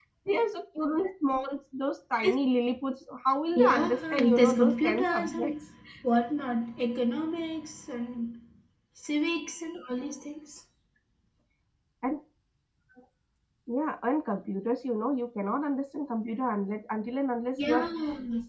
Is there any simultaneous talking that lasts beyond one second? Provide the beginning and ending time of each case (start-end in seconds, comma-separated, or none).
3.6-5.5